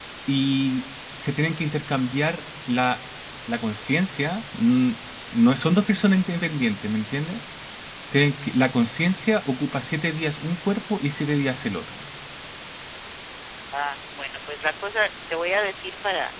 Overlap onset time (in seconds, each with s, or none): none